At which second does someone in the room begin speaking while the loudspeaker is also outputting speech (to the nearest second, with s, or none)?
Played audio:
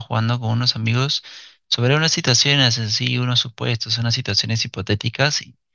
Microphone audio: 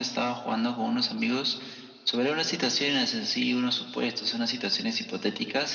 none